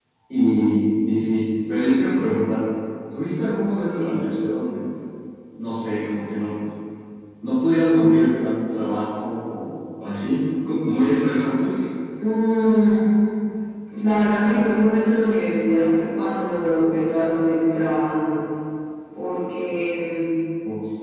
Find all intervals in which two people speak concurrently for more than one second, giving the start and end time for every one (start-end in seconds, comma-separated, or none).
none